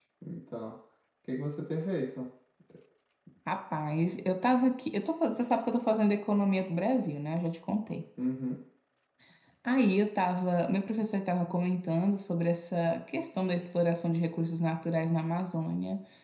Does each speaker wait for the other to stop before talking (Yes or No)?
Yes